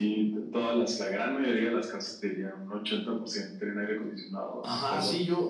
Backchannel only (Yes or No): No